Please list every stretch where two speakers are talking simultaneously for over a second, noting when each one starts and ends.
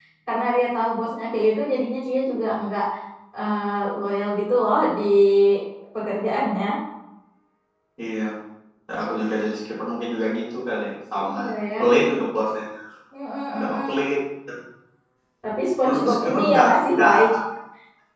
15.8-17.1

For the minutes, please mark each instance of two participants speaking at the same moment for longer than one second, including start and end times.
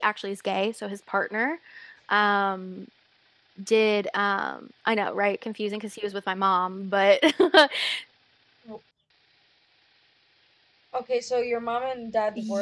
none

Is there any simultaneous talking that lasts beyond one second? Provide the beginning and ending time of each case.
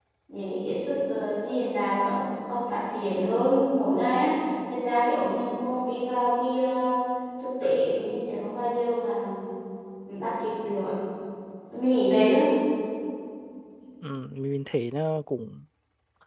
none

